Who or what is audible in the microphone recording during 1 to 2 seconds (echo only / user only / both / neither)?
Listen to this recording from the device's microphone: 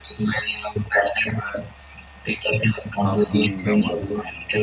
echo only